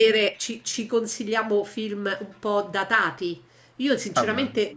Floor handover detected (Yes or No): No